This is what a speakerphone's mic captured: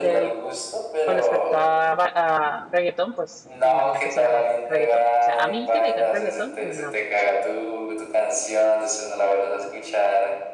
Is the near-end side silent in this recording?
No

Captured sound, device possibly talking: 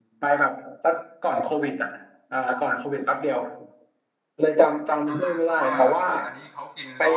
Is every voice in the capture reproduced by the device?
No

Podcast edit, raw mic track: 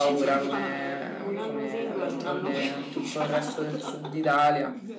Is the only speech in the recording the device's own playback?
No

